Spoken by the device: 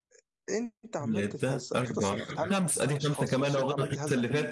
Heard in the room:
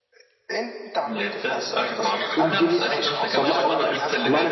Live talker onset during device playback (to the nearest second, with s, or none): 2 s